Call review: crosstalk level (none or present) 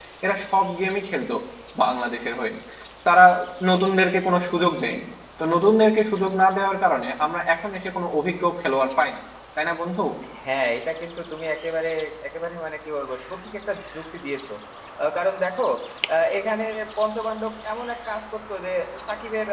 none